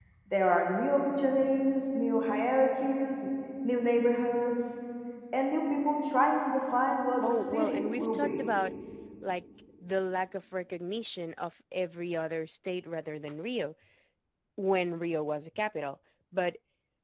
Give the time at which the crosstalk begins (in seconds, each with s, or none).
7.2 s